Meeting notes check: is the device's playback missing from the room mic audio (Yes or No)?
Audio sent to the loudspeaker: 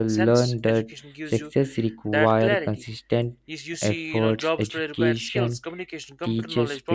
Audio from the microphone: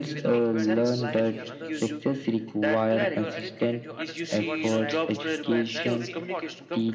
No